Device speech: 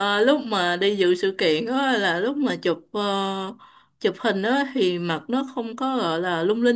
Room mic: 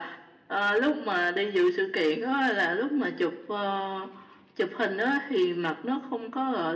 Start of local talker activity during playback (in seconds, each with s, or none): none